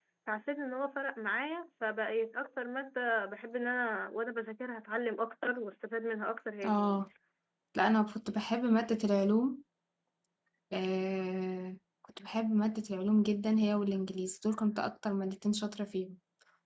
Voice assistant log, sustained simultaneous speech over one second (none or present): none